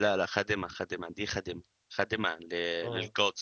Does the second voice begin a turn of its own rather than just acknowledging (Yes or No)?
No